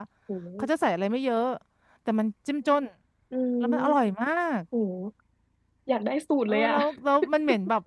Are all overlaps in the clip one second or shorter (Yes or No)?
Yes